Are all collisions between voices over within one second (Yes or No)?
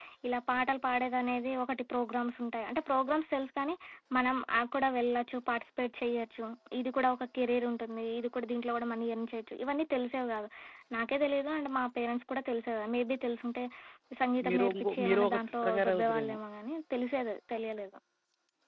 No